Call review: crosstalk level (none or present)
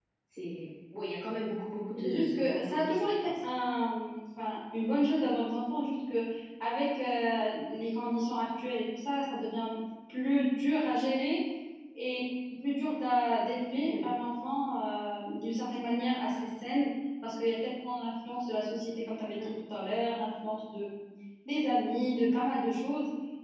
present